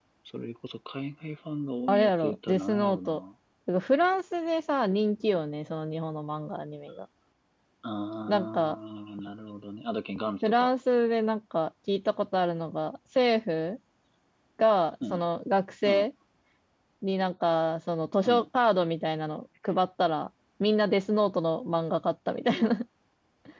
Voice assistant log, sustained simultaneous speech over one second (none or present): present